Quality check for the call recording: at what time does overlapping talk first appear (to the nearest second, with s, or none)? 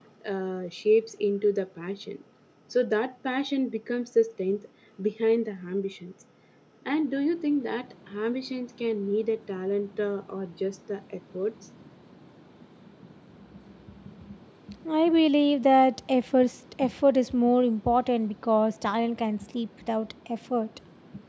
none